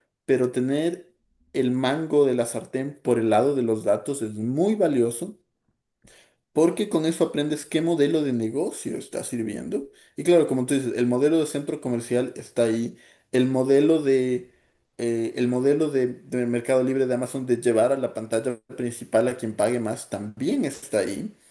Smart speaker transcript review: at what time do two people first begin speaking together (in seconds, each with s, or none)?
none